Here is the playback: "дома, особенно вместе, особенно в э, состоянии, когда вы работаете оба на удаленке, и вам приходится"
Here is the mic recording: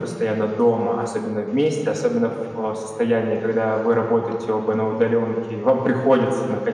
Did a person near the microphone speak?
No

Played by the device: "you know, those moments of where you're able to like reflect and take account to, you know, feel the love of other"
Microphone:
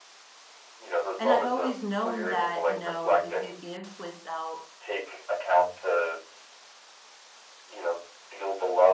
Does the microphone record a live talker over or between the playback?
Yes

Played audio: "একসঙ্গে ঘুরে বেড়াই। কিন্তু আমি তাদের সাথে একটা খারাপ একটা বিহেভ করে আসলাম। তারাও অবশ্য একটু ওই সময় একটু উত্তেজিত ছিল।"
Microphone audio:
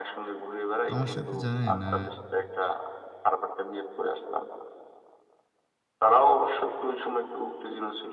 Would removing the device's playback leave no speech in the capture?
No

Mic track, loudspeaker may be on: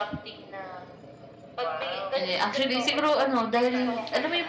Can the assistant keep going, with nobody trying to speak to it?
No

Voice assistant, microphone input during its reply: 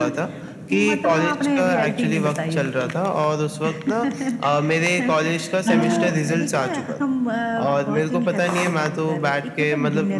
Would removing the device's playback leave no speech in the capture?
No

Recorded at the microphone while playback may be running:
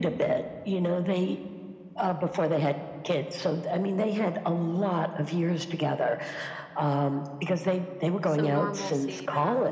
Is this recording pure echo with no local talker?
No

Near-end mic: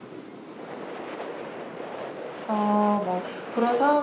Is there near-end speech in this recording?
Yes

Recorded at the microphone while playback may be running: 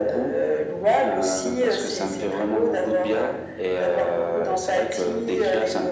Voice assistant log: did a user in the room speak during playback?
No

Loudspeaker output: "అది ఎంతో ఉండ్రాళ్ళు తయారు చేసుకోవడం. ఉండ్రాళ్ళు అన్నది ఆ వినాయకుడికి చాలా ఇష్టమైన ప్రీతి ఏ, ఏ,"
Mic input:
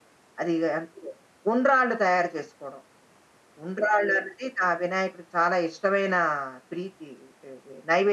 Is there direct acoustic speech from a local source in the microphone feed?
No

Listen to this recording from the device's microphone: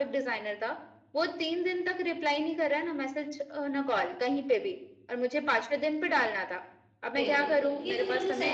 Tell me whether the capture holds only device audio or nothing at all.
No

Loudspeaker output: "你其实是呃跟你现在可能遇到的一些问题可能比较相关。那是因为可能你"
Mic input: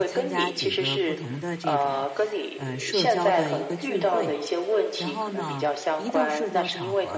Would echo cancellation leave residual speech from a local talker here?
Yes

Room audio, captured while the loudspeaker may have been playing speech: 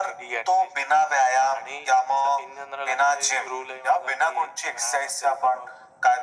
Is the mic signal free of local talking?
Yes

